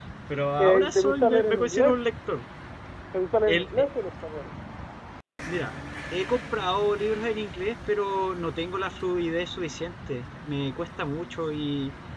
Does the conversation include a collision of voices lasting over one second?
Yes, from 0.6 s

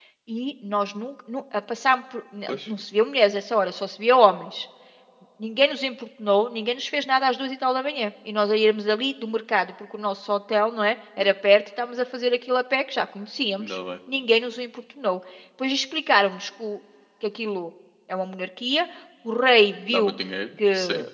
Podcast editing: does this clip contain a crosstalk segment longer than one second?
No

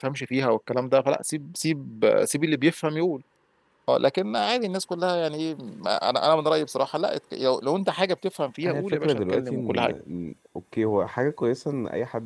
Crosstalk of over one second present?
Yes, from 8.6 s

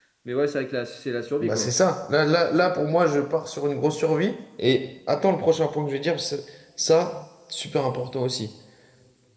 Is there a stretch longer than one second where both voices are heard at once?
No

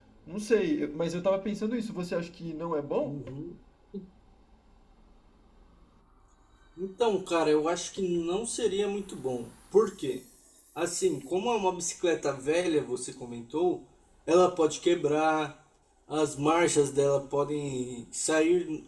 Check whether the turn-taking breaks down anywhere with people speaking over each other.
No

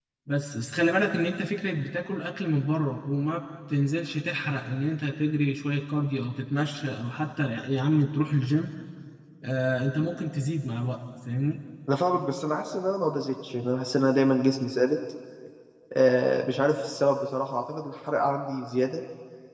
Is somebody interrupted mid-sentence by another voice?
No

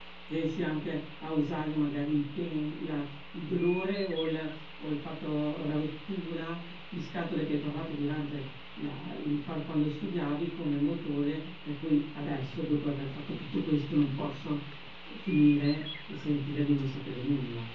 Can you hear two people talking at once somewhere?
No

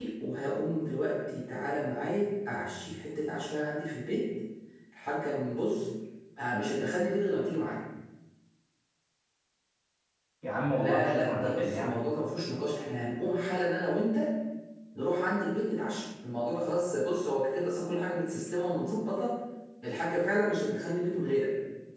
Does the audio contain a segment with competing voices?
Yes, from 10.7 s

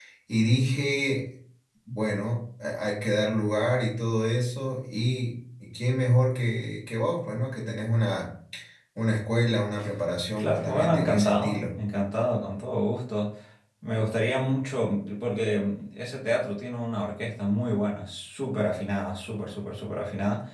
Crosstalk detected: Yes, from 10.4 s

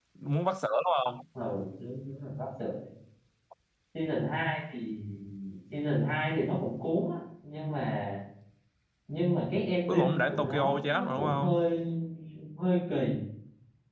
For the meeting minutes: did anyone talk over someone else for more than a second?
Yes, from 9.9 s

